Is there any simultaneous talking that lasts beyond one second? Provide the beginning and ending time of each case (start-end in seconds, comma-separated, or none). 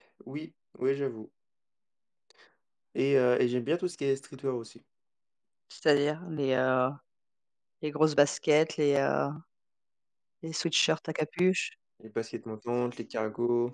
none